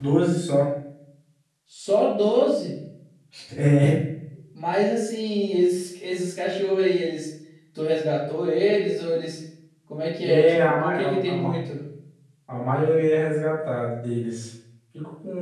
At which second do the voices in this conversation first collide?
10.2 s

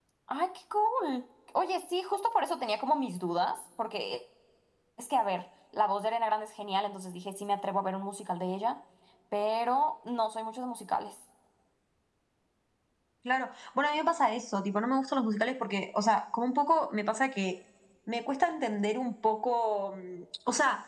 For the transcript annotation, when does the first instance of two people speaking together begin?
none

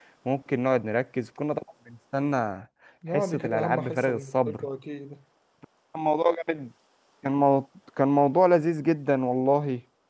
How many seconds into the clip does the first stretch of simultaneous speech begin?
3.1 s

